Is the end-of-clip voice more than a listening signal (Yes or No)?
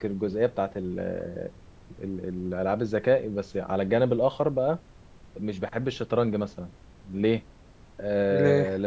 No